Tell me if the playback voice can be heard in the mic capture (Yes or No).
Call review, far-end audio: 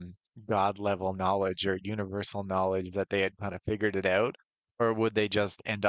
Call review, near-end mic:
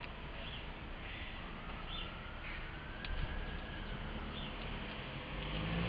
No